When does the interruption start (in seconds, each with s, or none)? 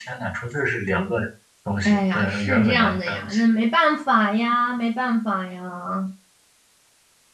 1.8 s